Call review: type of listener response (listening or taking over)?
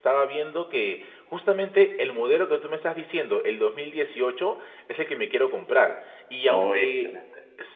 listening